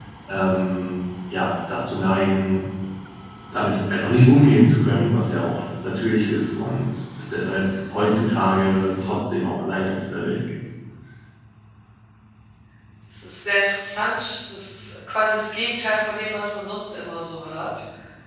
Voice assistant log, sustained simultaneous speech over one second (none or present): none